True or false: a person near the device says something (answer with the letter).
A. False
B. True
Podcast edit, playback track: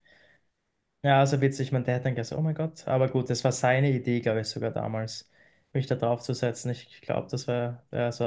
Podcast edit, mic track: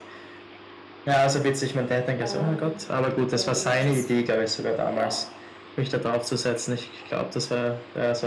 B